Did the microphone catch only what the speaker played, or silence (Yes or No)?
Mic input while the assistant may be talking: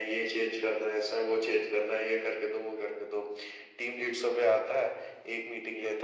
Yes